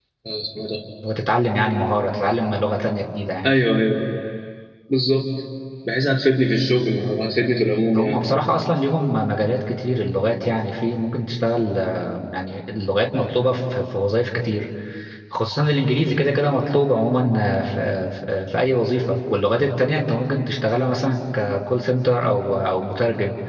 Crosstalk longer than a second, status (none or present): none